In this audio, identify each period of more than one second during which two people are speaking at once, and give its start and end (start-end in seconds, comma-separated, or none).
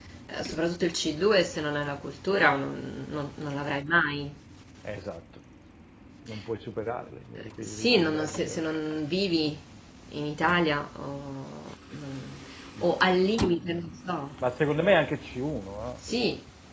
7.4-8.6